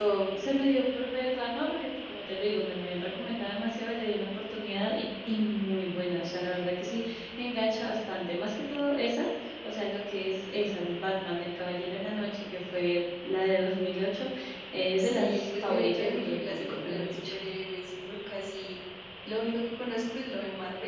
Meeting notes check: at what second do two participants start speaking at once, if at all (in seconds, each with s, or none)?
15.0 s